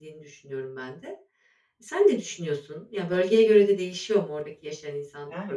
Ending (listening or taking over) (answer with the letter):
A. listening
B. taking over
B